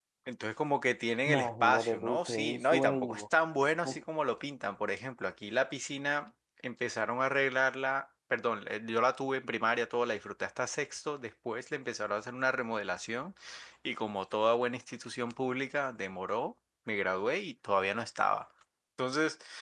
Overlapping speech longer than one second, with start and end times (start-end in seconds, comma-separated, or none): 1.3-3.2